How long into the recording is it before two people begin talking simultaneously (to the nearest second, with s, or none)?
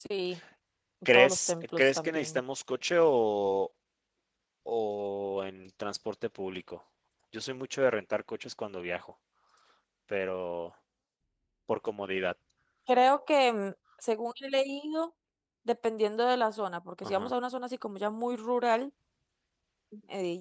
1 s